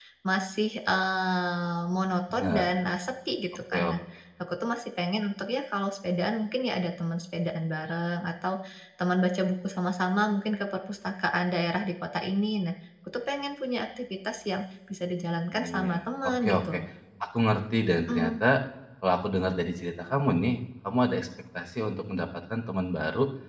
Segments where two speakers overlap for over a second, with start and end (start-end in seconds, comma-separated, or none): 15.5-16.8